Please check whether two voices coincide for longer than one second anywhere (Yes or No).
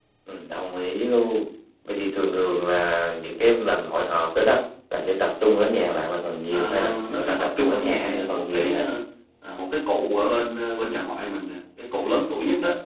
Yes